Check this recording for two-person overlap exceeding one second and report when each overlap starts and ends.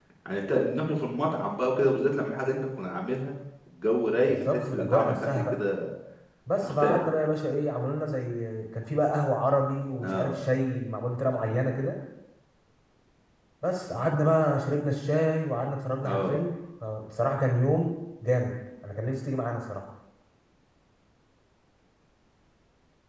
4.3-5.5

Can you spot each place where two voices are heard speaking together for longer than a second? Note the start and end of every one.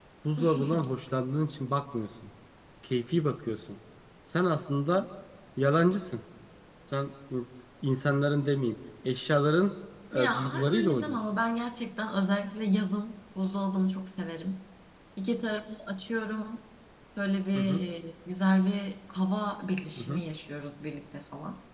10.2-11.4

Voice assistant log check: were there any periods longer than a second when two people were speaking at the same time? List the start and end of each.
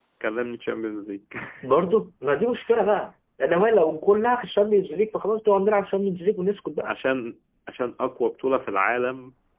none

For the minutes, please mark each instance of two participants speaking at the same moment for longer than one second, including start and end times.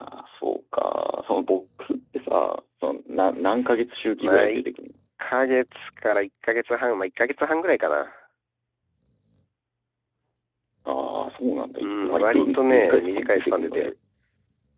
11.8-13.9

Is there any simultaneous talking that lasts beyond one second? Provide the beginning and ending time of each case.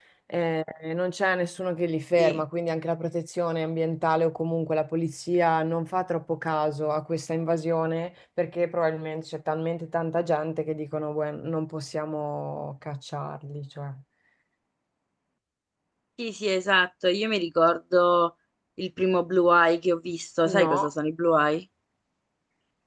none

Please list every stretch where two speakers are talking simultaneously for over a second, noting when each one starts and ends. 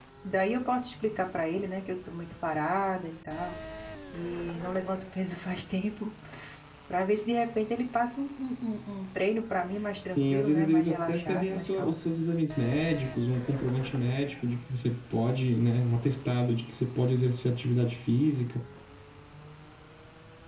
10.1-12.0

